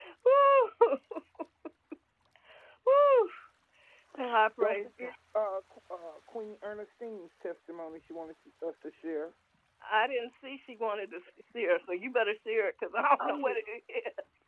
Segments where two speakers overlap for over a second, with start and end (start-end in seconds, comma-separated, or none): none